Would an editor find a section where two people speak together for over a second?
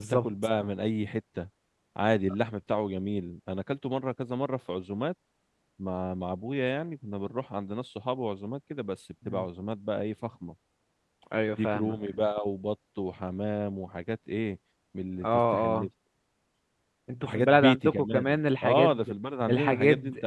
Yes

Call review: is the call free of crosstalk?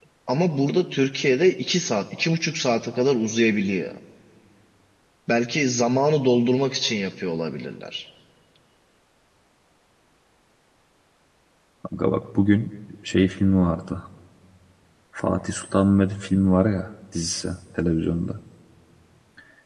Yes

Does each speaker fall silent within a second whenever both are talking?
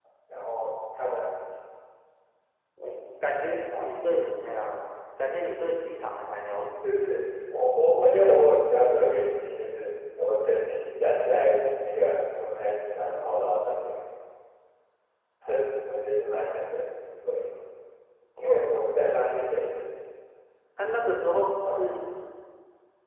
Yes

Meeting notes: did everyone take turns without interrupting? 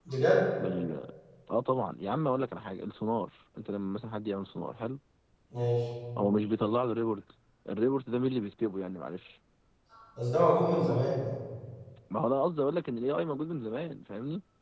Yes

